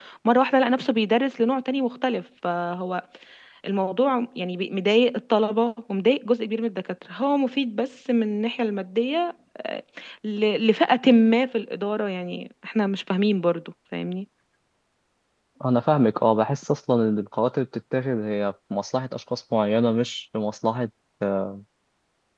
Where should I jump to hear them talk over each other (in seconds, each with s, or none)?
none